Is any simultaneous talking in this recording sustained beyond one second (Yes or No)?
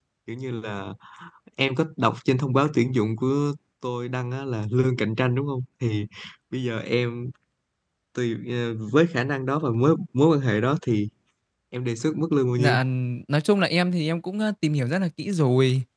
No